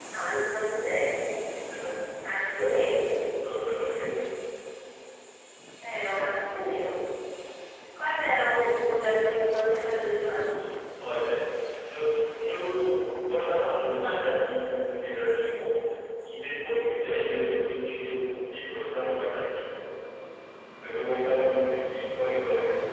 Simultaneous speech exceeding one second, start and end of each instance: none

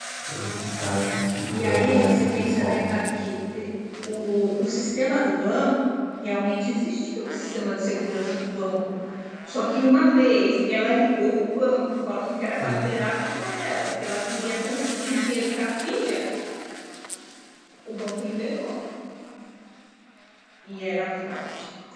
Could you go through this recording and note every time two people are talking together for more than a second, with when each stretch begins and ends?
1.5-3.0

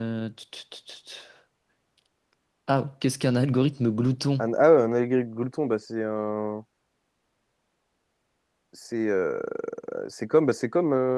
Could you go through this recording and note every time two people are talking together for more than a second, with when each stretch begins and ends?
none

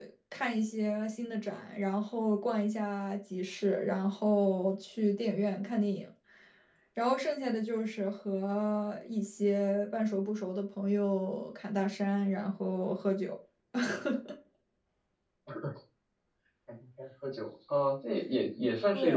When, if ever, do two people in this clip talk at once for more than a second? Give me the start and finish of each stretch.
none

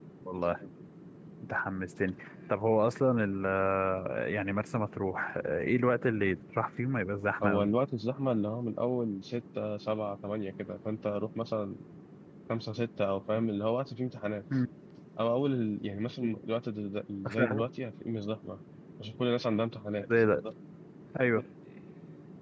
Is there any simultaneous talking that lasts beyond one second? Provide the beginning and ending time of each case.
none

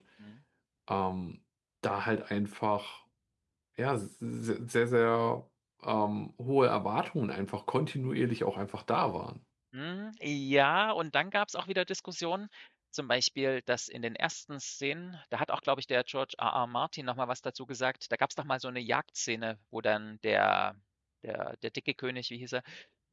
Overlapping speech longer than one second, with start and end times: none

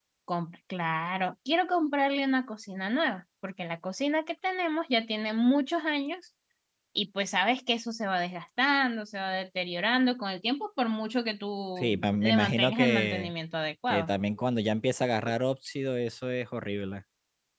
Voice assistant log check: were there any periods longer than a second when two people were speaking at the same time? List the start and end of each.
11.8-13.3

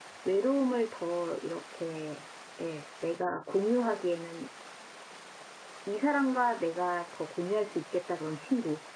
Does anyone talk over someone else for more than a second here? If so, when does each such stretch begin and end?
none

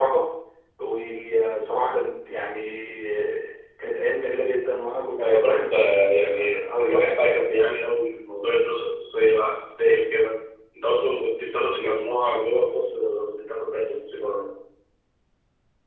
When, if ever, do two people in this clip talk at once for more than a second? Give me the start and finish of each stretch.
5.2-7.0

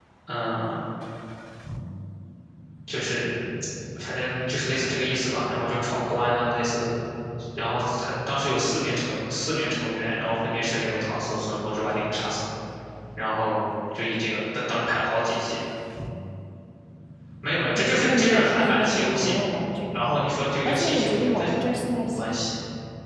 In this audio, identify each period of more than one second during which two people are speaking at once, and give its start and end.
17.8-19.3, 20.6-22.2

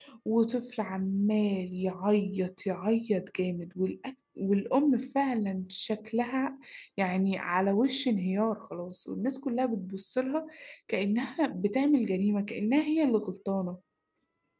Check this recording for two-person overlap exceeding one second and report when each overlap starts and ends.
none

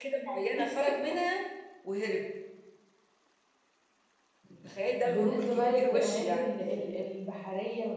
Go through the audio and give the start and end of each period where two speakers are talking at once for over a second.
5.0-6.5

